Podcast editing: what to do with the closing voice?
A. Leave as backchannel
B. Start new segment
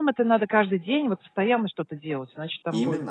B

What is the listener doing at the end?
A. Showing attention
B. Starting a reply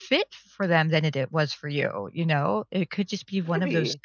A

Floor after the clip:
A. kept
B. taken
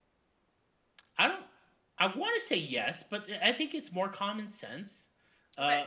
A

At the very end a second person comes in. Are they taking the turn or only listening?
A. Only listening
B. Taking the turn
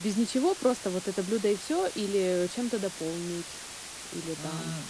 B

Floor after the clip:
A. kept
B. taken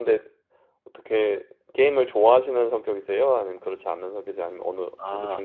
B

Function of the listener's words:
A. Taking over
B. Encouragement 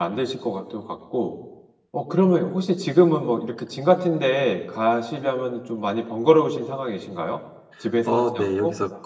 A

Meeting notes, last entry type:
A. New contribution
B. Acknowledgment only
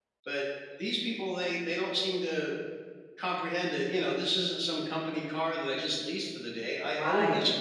A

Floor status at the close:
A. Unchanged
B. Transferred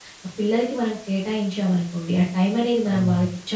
A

